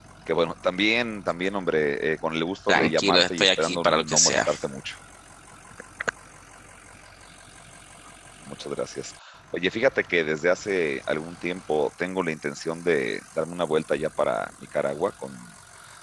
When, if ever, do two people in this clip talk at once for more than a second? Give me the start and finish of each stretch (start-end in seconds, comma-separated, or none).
2.7-4.5